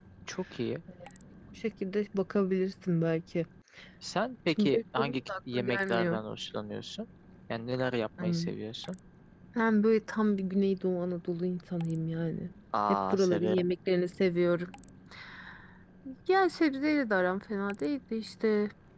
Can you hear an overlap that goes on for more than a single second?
Yes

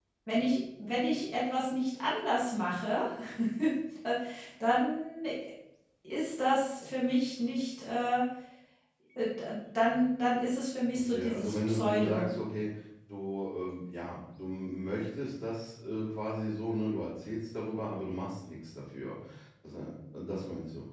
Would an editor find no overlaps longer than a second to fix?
No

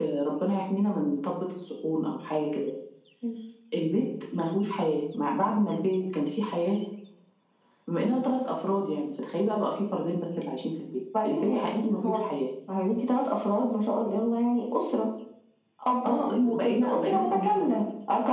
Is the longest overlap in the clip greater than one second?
Yes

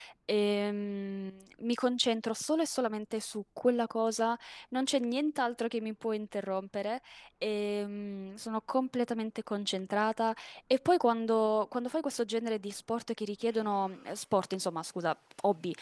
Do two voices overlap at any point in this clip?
No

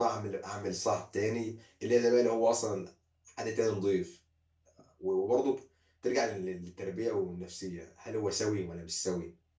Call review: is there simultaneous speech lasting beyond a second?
No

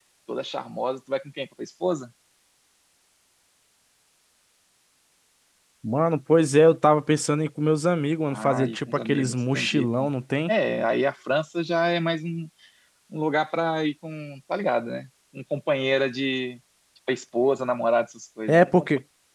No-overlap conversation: No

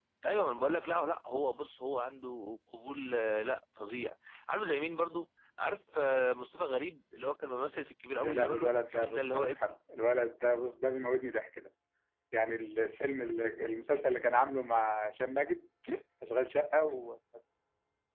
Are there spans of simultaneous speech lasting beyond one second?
Yes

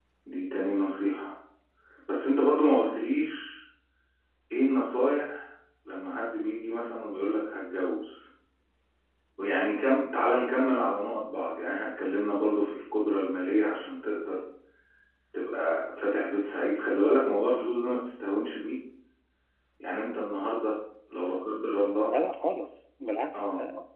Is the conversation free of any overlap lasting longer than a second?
Yes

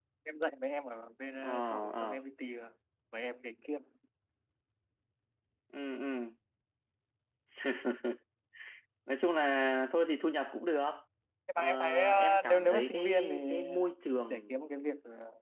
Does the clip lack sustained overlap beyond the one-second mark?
No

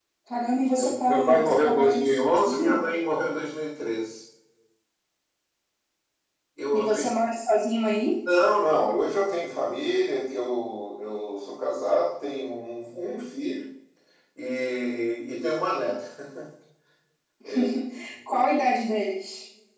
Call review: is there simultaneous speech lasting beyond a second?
Yes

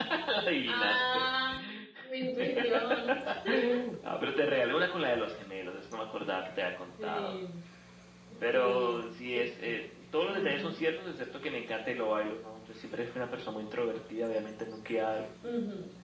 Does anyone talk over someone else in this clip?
Yes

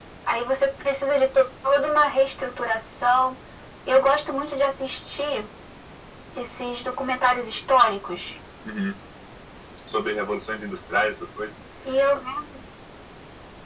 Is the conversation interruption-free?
Yes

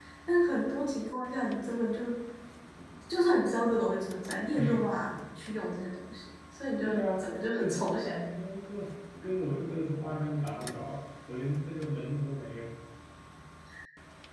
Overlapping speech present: Yes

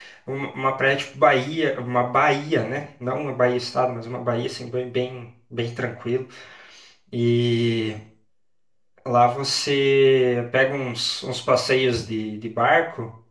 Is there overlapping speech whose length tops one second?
No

